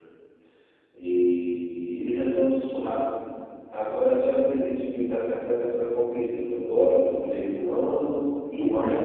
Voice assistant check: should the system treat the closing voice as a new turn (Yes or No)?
Yes